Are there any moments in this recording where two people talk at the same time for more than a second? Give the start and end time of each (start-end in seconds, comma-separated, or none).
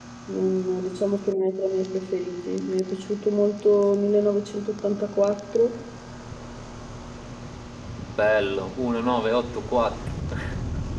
none